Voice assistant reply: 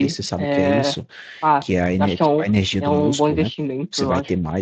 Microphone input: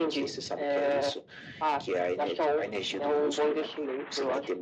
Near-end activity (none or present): none